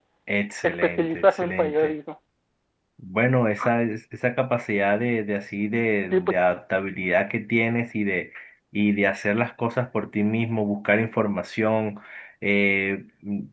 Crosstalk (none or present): present